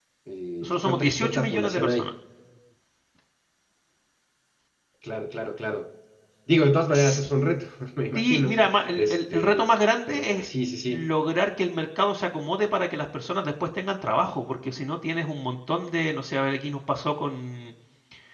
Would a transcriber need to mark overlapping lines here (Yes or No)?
Yes